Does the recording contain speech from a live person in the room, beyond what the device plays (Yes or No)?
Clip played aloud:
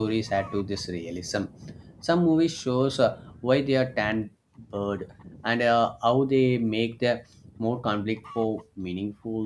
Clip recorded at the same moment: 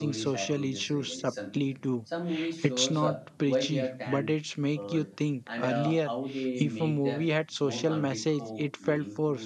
Yes